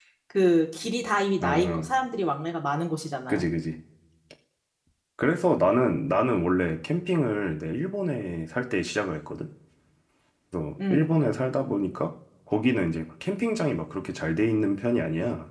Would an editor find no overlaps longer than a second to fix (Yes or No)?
Yes